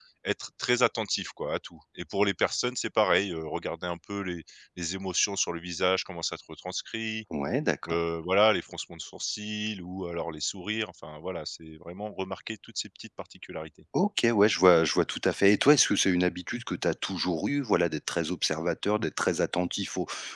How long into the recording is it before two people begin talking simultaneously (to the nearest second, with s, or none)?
none